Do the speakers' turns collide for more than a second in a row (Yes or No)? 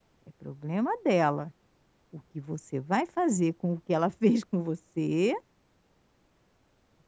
No